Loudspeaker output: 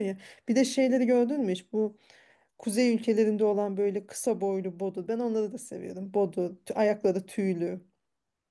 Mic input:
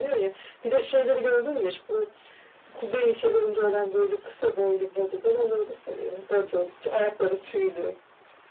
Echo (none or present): present